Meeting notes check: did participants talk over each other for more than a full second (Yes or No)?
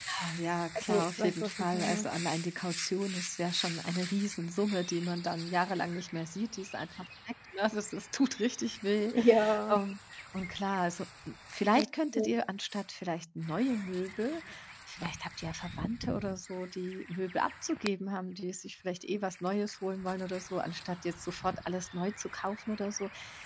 Yes